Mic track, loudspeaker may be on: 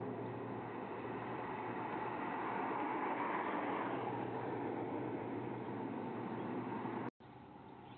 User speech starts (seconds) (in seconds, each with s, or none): none